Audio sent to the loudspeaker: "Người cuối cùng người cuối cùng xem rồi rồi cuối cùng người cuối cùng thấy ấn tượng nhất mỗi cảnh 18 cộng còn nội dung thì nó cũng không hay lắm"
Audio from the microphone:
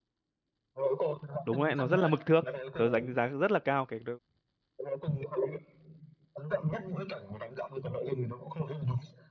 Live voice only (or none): đúng đấy nó rất là mực thước tớ đánh giá rất là cao cái